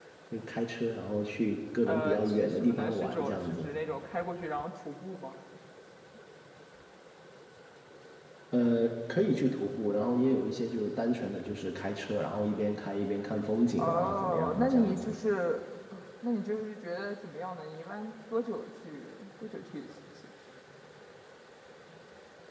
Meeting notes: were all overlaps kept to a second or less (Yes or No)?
No